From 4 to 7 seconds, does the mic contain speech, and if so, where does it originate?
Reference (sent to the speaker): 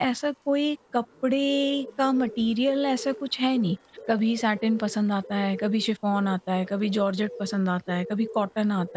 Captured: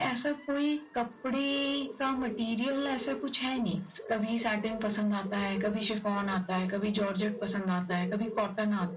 echo only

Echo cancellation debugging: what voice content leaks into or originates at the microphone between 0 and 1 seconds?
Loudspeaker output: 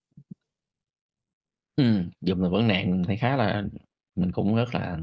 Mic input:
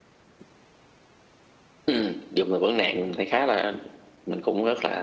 neither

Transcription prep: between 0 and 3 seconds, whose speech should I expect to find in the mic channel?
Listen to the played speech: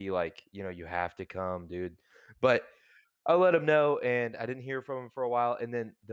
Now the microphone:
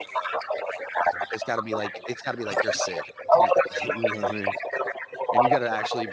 both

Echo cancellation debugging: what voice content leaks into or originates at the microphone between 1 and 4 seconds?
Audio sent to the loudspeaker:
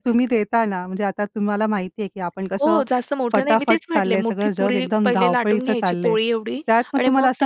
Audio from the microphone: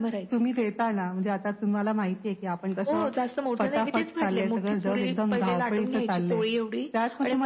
echo only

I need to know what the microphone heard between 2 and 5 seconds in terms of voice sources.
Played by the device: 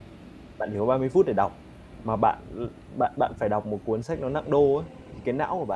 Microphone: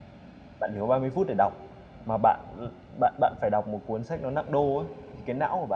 echo only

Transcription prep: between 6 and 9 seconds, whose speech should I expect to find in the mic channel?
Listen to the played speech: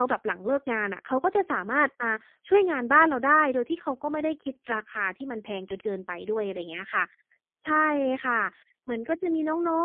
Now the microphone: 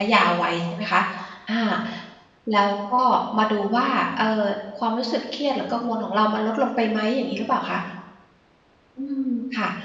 user only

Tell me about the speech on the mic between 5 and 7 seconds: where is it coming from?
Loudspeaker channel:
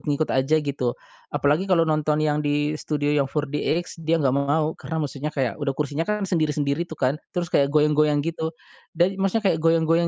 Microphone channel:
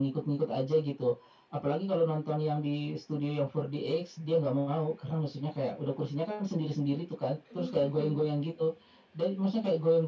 echo only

